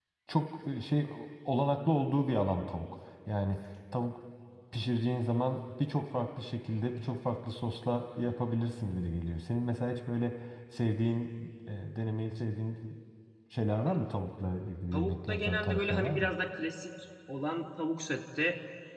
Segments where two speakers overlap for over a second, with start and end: 14.9-16.3

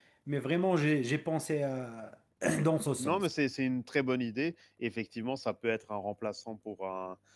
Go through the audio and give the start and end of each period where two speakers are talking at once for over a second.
none

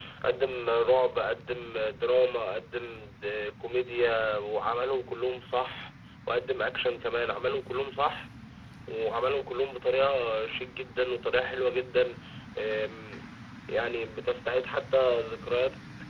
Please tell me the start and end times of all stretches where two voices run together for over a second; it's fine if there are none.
none

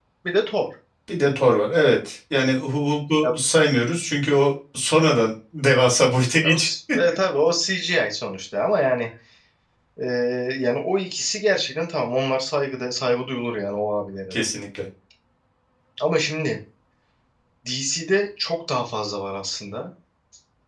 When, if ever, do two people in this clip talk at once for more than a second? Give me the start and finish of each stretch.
none

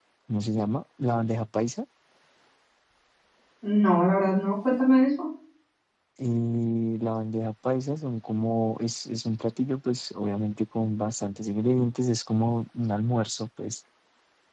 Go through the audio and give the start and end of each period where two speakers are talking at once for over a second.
none

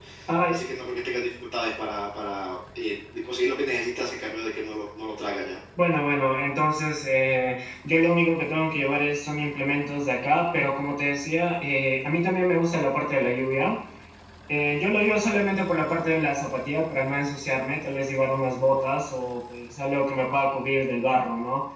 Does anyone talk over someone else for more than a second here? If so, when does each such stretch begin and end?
none

